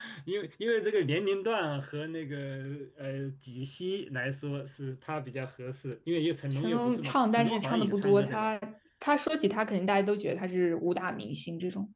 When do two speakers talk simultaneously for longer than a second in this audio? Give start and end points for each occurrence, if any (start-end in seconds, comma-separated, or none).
6.5-8.5